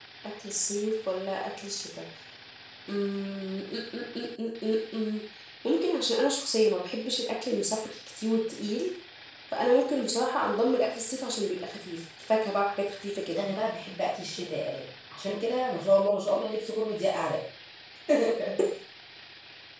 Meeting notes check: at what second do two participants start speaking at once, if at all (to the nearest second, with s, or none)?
none